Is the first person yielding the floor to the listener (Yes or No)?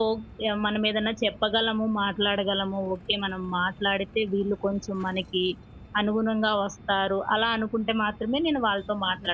Yes